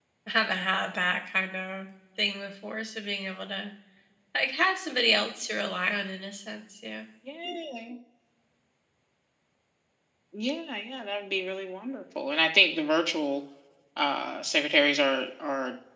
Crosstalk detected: No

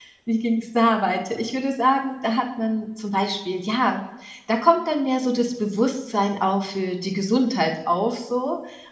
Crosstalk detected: No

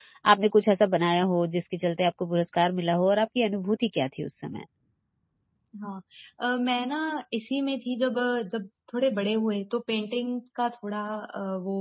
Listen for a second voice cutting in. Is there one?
No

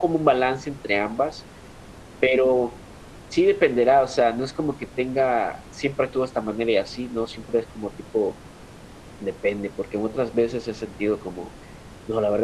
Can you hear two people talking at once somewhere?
No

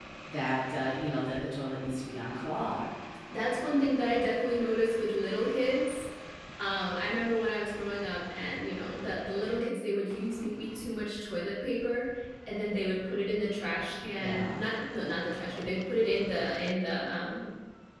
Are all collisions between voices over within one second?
Yes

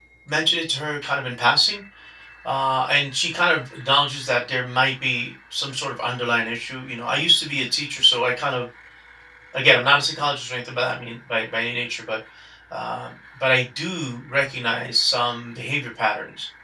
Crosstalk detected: No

